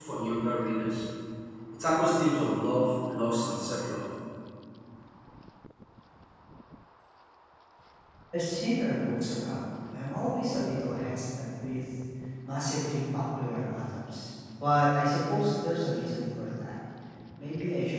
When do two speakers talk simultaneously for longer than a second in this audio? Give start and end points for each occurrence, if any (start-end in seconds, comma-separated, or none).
none